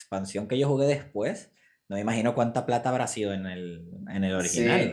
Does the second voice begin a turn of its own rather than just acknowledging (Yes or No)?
Yes